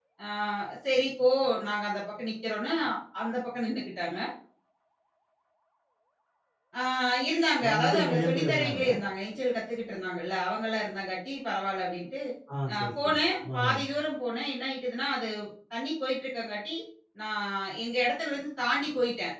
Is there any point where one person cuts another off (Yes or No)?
Yes